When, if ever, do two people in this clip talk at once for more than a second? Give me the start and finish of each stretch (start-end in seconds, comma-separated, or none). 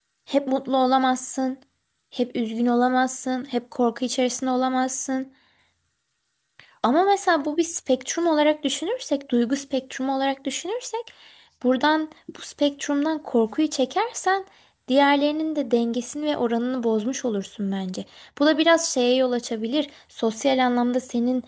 none